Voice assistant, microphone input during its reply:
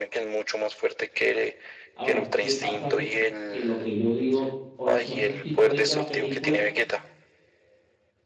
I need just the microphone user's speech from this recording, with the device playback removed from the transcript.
Ahora, ¿qué pasa? Que, que lo que yo digo, ori- no sé si tú has visto la película

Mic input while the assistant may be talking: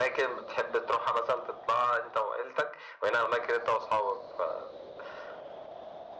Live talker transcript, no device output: none

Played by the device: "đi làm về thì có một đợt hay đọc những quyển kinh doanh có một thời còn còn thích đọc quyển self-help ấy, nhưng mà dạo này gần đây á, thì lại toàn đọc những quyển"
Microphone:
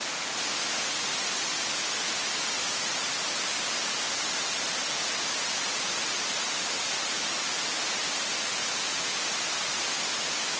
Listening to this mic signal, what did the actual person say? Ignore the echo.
none

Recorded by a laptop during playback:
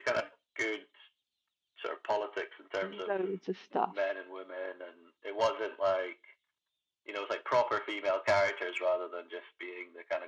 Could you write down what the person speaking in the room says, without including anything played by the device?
loads of stuff.

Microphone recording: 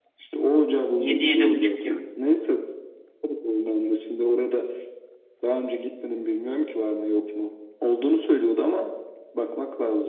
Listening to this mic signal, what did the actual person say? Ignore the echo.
7 yedi buçuk gibi.

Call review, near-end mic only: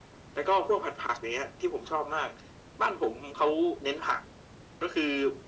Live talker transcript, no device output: none

